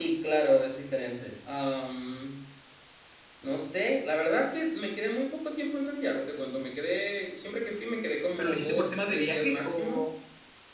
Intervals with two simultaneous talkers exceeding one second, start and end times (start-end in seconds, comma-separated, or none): 8.4-10.0